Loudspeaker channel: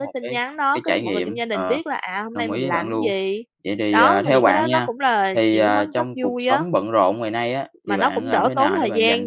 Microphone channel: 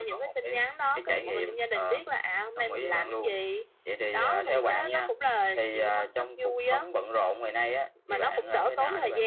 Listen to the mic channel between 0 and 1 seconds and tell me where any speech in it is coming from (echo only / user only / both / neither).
echo only